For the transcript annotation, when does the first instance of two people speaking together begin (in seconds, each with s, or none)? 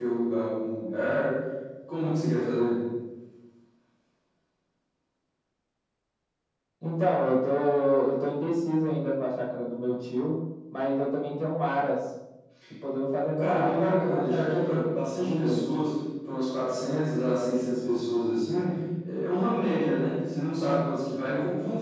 13.4 s